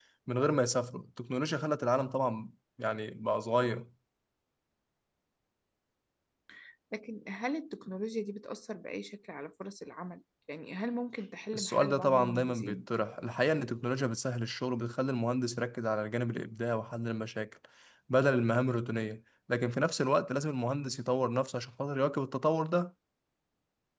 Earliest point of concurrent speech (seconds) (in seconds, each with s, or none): 11.5 s